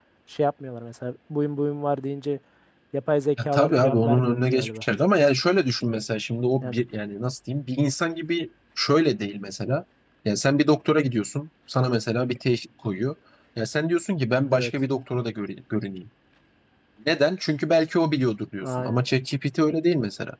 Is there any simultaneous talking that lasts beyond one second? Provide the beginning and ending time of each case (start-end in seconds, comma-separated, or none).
3.4-4.8